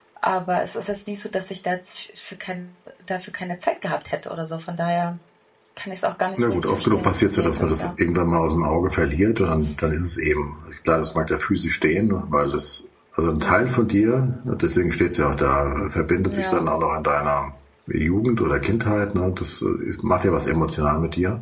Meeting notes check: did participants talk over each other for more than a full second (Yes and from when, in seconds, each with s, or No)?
Yes, from 6.4 s